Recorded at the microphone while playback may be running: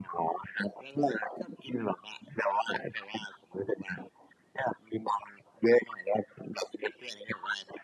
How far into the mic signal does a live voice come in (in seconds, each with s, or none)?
none